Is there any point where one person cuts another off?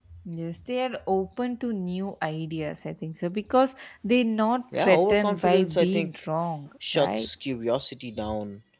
Yes, from 4.7 s

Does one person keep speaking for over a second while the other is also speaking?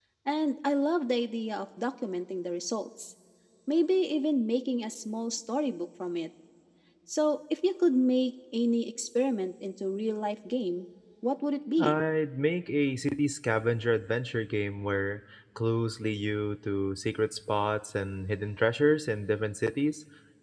No

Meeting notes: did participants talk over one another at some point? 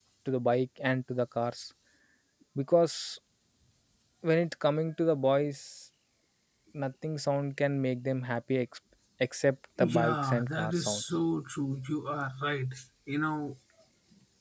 Yes, from 9.8 s

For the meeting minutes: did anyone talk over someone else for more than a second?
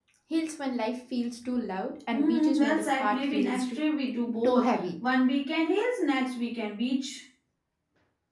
Yes, from 2.1 s

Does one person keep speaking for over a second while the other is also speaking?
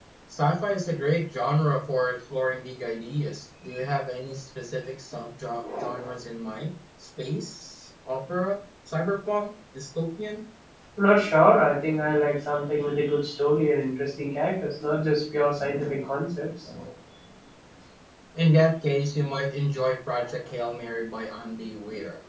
No

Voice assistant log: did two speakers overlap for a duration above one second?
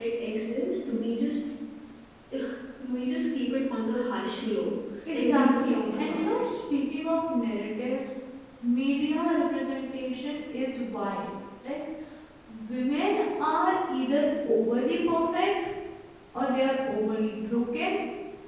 Yes, from 5.1 s

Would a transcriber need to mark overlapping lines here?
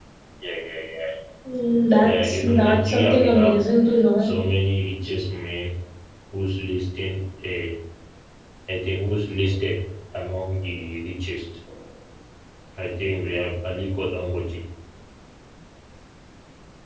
Yes, from 2.0 s

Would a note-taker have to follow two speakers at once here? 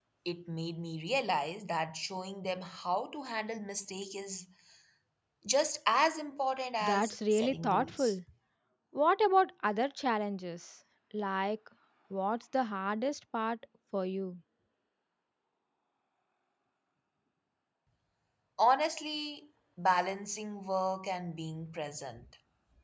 Yes, from 6.8 s

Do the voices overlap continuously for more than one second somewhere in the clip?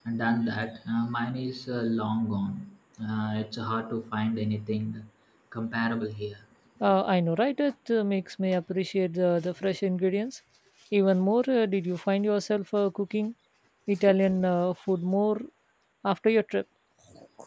No

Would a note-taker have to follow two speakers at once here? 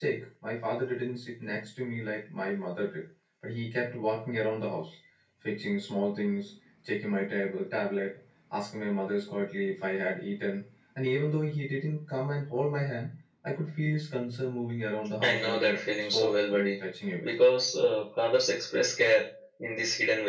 Yes, from 15.2 s

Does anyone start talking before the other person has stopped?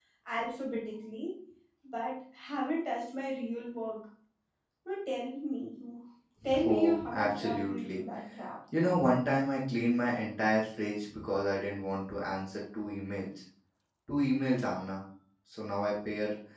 Yes, from 6.6 s

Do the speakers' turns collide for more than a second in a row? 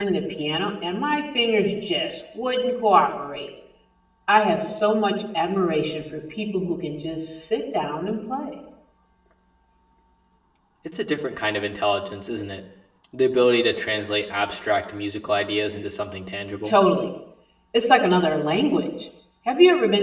No

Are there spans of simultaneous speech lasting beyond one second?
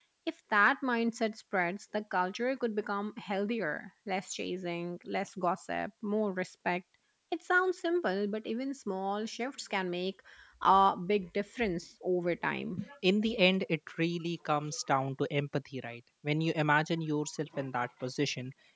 No

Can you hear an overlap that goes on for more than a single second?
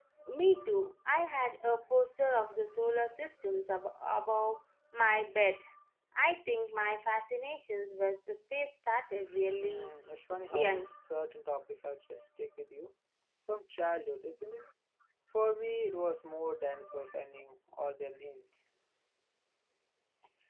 No

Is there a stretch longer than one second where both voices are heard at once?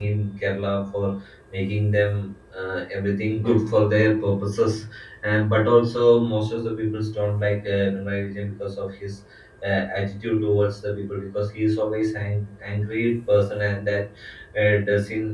No

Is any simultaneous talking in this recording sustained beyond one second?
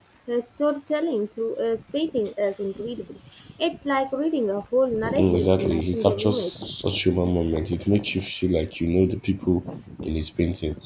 Yes, from 5.1 s

